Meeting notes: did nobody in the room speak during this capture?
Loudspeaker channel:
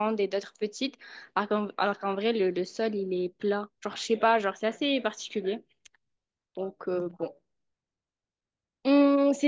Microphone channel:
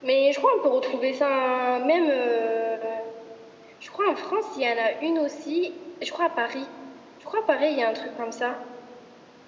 No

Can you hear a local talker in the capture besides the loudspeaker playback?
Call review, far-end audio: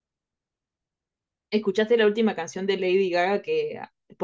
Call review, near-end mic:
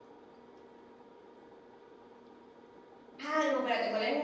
Yes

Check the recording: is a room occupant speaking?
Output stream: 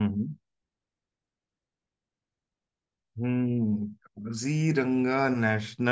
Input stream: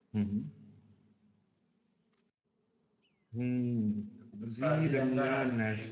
Yes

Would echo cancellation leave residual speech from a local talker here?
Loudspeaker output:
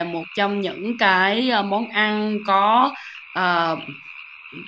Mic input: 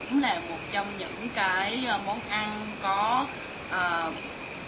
No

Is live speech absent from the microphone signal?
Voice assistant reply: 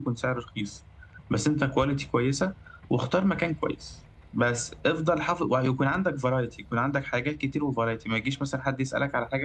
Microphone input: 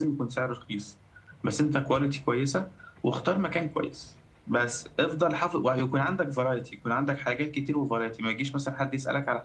Yes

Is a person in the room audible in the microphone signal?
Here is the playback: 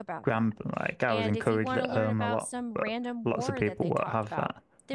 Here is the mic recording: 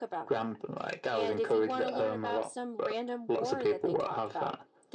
No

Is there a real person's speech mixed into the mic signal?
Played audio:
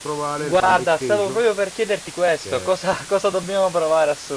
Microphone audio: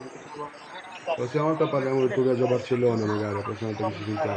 Yes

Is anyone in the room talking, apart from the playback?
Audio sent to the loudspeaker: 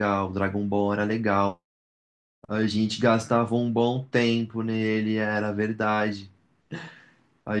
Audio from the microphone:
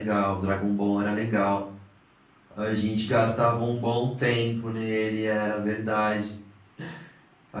No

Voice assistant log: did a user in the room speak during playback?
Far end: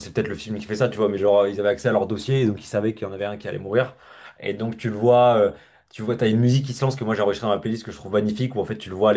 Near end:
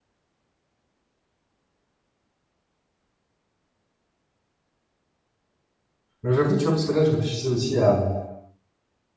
Yes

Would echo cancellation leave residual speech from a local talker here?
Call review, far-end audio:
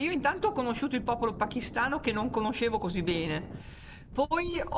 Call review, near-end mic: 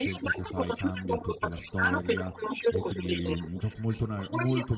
Yes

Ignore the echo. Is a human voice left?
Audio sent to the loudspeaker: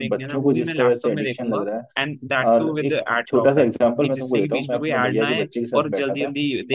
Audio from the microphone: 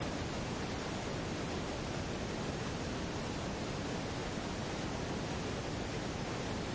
No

